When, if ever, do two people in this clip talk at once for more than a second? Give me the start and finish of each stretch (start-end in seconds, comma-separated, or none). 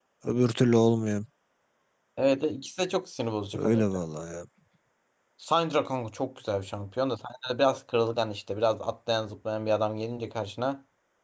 none